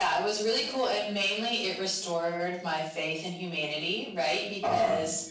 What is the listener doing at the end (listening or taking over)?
listening